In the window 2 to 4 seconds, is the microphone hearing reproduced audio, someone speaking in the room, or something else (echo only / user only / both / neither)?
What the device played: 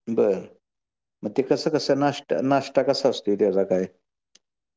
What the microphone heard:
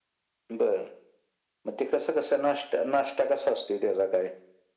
echo only